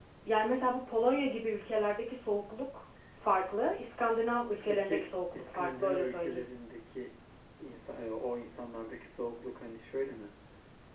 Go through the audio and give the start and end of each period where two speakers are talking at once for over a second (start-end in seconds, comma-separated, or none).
4.6-6.5